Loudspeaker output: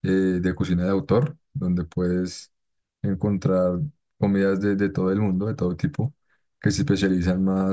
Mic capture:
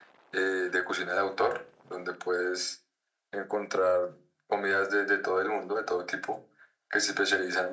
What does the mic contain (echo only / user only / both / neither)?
echo only